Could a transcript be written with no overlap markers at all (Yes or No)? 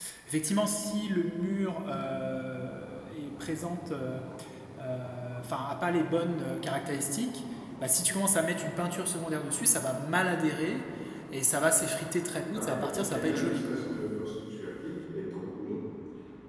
No